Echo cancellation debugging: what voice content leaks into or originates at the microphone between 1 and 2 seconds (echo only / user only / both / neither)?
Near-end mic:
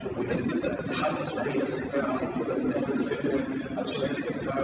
echo only